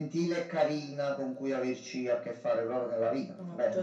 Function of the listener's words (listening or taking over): taking over